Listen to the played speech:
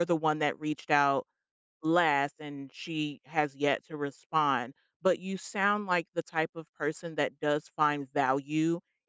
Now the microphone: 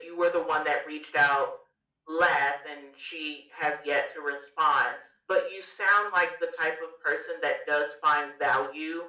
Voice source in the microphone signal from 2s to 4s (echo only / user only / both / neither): echo only